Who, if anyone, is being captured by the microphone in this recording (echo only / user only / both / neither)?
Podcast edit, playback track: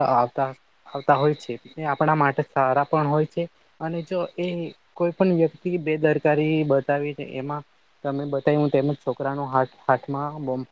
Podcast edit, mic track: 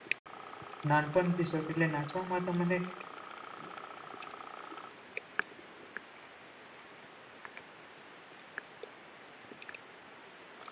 user only